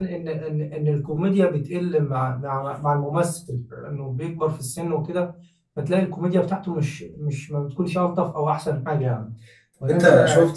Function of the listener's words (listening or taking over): taking over